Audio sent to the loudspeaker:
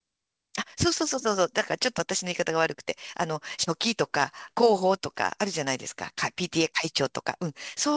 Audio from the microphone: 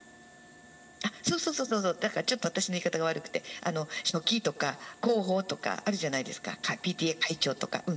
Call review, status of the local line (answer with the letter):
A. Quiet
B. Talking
A